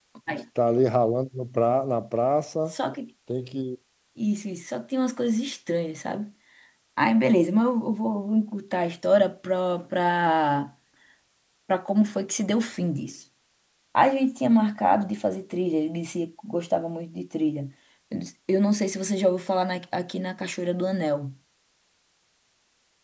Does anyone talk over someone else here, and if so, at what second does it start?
none

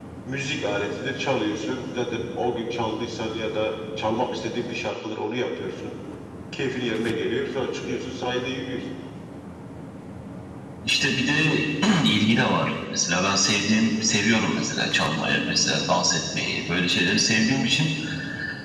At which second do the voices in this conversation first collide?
none

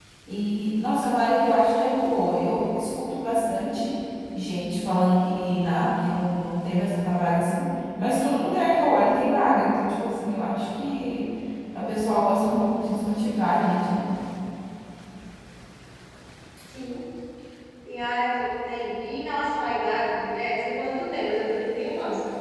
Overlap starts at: none

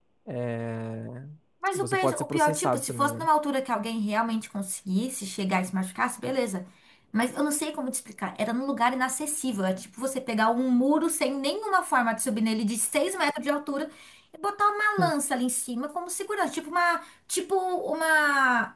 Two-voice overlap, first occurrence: 1.8 s

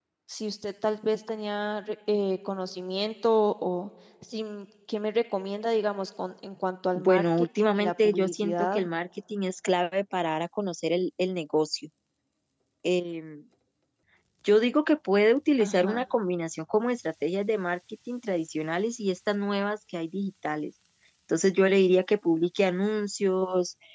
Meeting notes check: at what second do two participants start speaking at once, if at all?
7.0 s

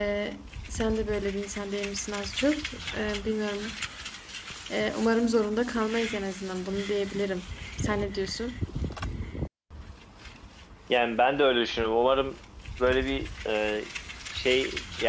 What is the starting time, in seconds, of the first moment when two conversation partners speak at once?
none

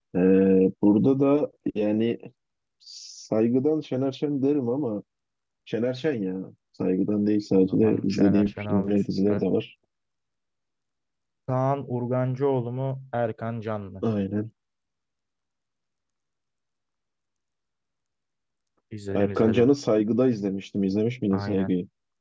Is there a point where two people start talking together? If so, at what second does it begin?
7.6 s

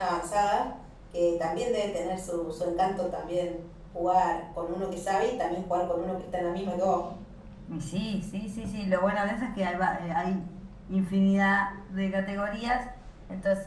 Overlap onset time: none

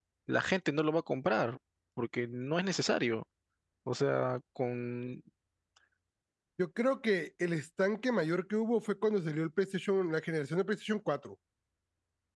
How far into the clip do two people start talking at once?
none

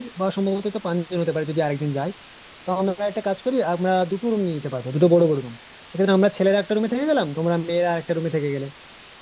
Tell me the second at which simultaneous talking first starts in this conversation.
none

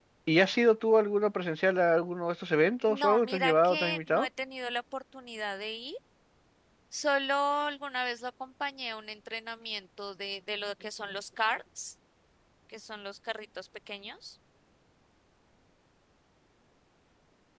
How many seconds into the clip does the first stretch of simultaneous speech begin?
2.9 s

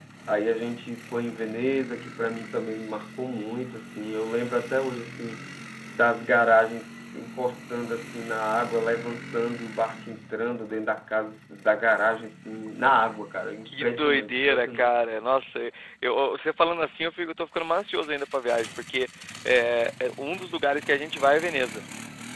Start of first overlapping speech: 13.6 s

